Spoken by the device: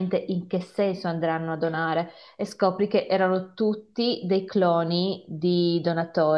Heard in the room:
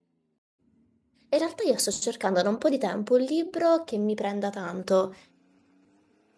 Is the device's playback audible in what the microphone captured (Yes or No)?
No